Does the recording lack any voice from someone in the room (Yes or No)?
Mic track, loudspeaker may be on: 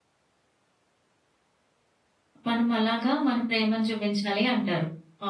No